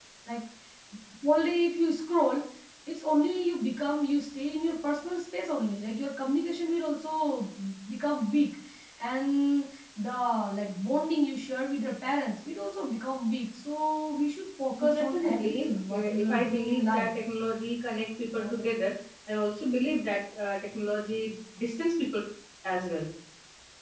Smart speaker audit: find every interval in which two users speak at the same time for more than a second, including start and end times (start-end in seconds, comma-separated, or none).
14.9-17.1